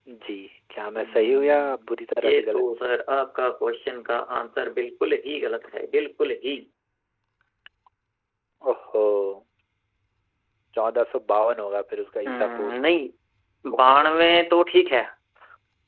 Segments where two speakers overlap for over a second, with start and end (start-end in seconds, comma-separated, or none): 1.0-2.6